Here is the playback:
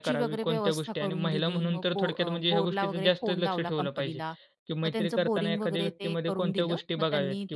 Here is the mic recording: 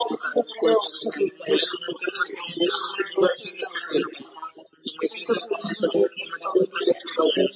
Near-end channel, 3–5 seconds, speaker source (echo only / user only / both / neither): echo only